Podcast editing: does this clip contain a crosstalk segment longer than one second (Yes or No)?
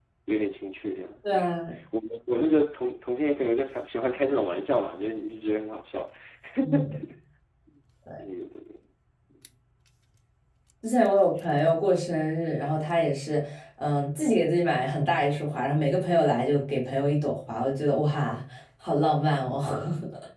No